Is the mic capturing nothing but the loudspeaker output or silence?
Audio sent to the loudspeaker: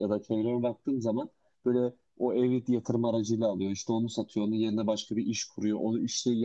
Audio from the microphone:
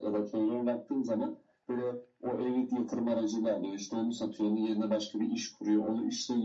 Yes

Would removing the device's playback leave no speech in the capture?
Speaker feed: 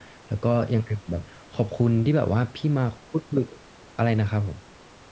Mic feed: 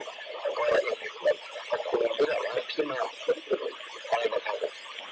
Yes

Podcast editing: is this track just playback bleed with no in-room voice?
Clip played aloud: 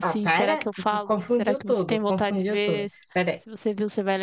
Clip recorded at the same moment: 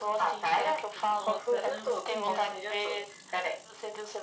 No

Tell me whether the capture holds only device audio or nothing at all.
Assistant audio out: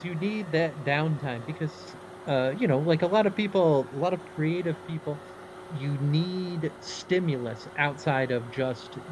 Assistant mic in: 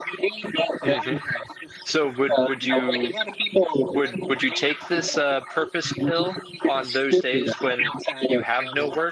No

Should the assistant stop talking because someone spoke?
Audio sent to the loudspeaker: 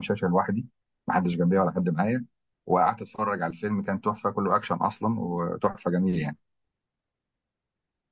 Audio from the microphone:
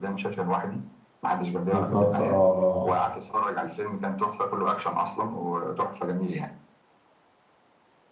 Yes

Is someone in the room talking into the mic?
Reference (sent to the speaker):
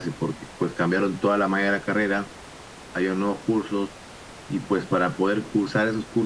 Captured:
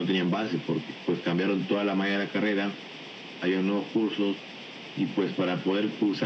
No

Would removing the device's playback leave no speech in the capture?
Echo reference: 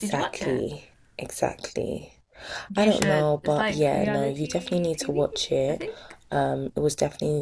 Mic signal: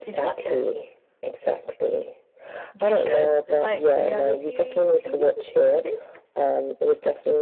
Yes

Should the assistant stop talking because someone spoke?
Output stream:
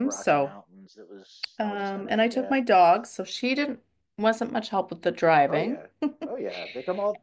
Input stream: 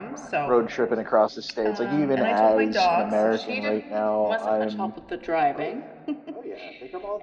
Yes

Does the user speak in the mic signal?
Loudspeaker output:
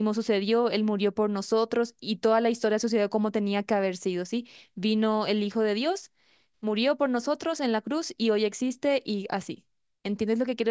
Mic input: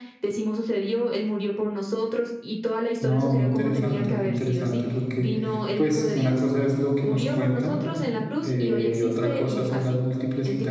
Yes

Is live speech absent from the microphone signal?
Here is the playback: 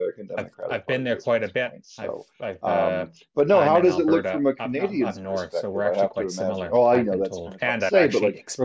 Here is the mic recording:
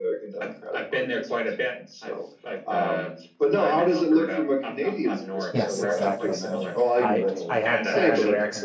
No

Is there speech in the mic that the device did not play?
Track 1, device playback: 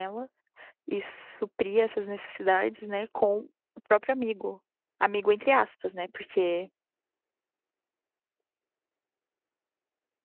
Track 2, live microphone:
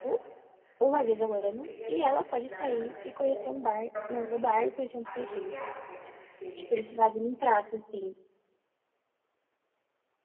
Yes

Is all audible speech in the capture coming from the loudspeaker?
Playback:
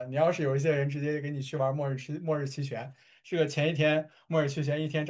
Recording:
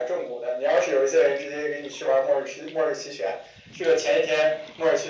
Yes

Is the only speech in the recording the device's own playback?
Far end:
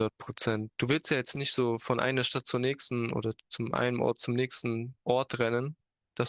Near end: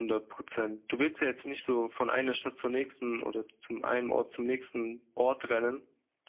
Yes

